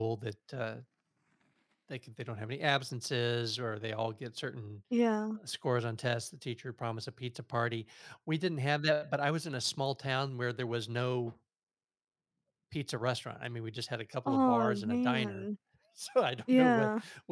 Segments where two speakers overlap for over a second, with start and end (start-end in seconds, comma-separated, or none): 14.2-15.5